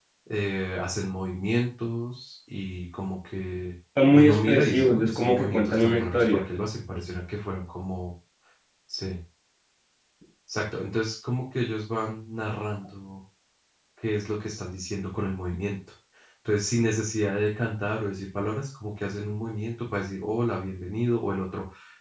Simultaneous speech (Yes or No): Yes